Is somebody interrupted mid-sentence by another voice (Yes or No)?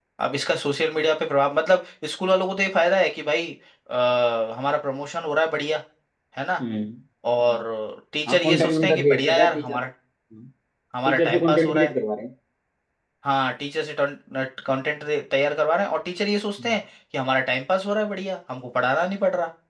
Yes